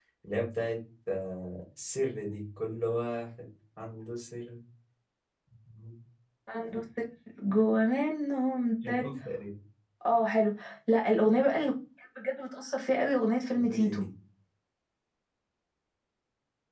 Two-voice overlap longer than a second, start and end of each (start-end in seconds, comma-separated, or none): none